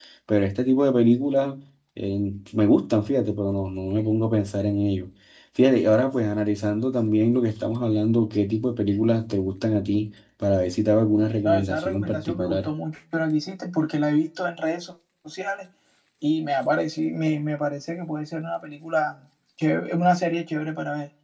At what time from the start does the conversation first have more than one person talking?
11.4 s

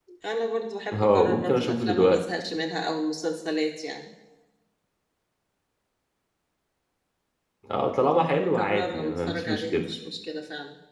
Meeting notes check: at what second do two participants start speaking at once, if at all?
0.9 s

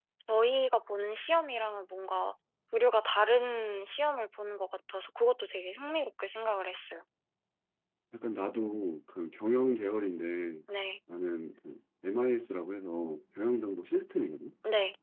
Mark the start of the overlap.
none

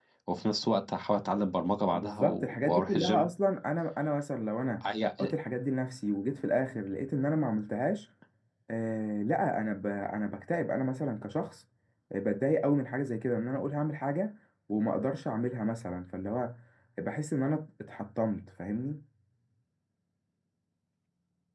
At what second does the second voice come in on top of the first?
1.9 s

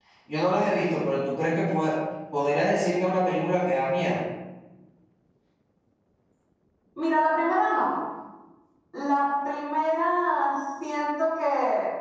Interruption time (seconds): none

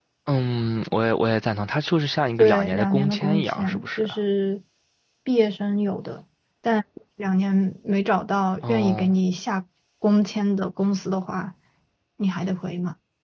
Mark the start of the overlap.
2.4 s

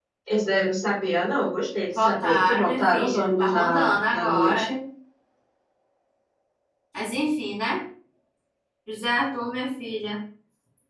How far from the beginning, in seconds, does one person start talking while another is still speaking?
1.9 s

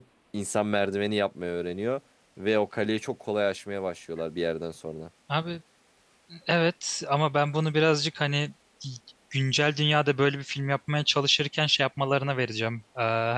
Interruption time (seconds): none

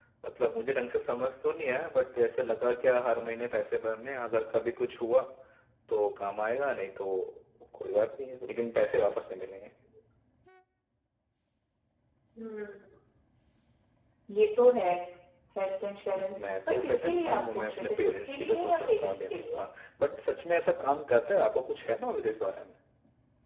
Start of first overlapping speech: 16.1 s

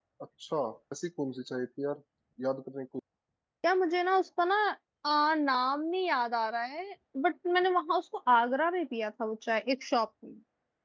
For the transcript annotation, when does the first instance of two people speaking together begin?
none

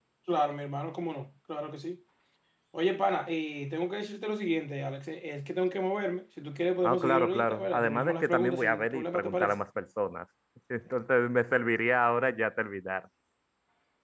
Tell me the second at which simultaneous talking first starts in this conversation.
6.8 s

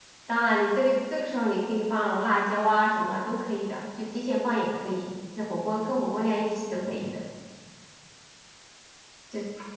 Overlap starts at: none

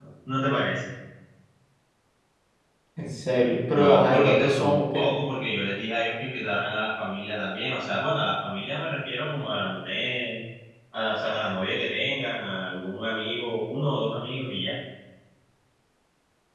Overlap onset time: 3.7 s

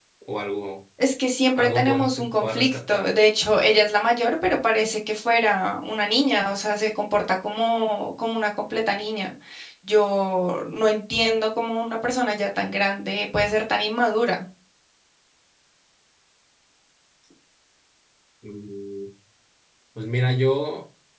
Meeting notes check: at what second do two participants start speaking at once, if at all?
1.6 s

